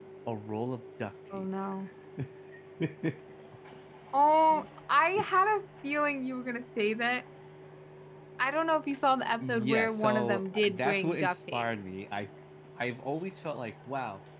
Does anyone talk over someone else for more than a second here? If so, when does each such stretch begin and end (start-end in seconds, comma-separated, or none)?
9.4-11.7